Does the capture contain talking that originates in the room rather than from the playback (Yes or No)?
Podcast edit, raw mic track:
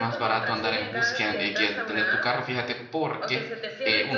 Yes